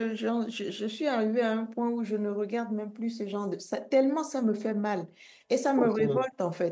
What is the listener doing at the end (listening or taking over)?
listening